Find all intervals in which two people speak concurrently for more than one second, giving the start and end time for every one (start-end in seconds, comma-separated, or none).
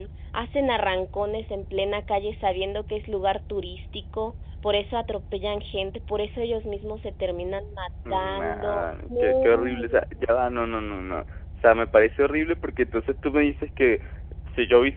8.1-9.8